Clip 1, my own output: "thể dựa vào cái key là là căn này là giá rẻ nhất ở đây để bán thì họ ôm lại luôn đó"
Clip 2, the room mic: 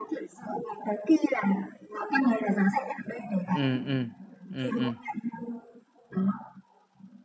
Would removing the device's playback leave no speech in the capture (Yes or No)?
No